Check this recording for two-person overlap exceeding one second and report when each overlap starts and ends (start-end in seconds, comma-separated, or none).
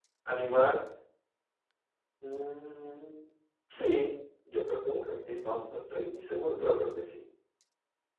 none